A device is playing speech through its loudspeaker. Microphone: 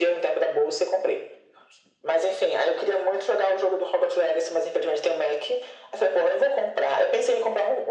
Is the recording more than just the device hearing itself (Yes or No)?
No